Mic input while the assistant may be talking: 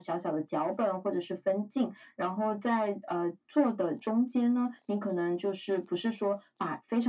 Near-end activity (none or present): none